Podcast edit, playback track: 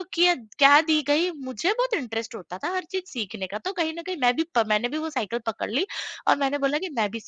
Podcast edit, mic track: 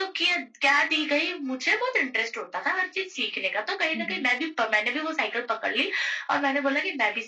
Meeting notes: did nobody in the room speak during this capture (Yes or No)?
No